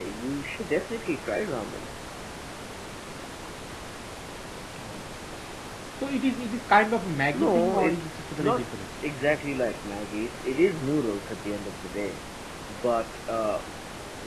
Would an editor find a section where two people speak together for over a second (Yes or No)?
Yes